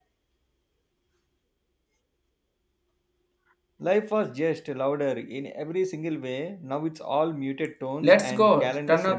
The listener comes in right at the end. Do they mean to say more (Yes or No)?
Yes